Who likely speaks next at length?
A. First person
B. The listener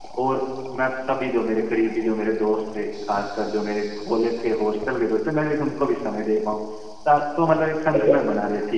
A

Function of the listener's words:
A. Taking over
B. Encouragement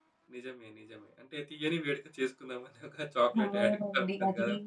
A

